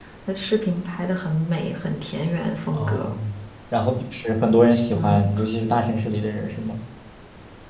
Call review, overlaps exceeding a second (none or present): none